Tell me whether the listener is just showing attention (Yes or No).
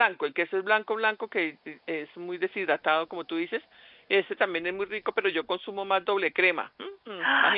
No